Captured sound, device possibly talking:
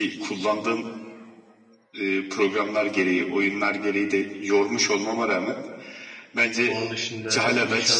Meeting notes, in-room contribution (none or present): present